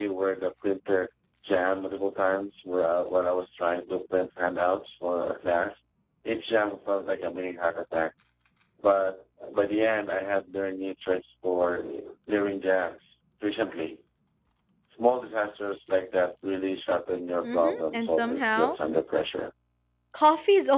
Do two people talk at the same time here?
Yes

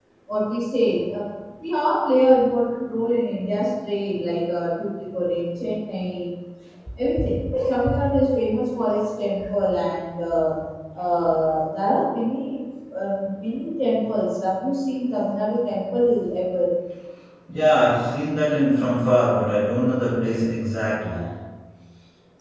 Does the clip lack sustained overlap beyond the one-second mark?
Yes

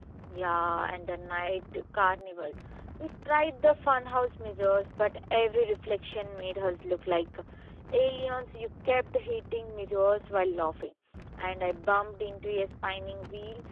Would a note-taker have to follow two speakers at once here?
No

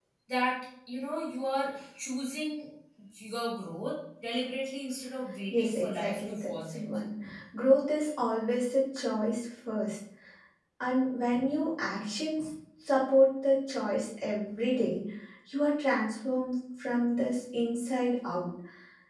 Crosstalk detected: Yes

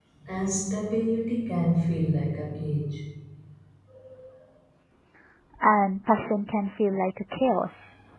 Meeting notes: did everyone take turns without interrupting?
Yes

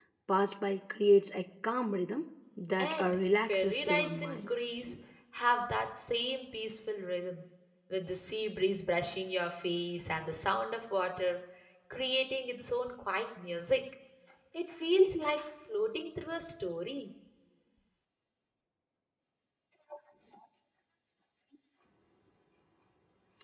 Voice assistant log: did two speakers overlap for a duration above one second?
Yes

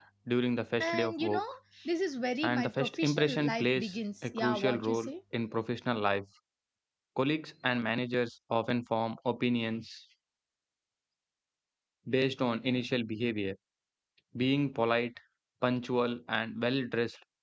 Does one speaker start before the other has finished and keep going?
Yes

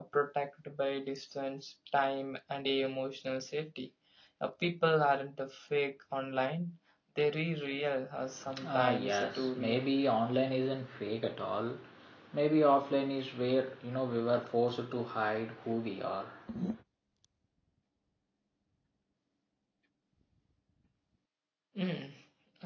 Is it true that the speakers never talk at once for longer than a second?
No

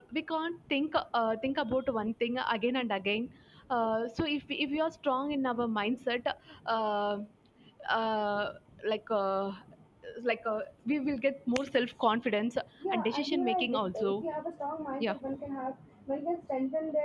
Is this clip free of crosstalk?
No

